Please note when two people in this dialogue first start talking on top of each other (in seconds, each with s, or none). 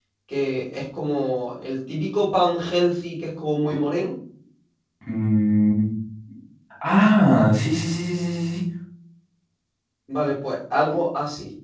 none